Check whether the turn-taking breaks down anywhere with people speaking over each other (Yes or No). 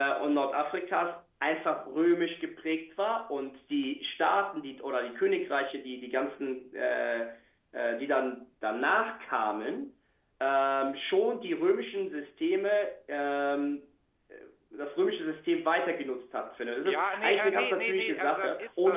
Yes